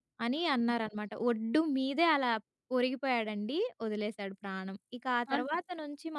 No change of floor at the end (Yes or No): Yes